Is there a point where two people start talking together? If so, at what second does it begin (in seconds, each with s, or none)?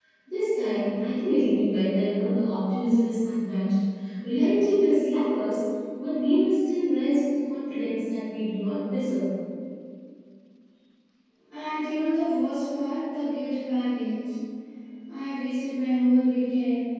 none